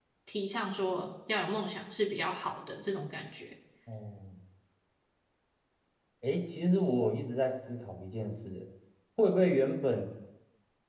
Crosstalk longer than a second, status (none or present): none